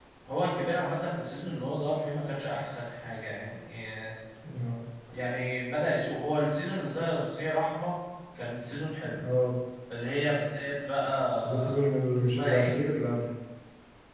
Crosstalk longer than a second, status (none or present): none